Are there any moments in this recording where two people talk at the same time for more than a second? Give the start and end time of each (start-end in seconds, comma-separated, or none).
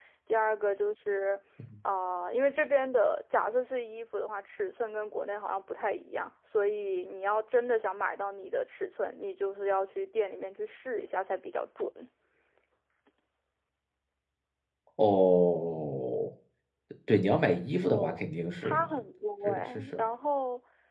none